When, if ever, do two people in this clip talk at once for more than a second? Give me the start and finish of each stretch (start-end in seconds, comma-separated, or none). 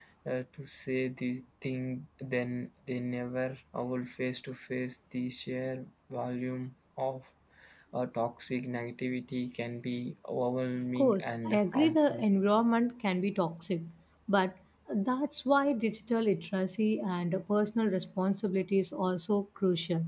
11.0-12.2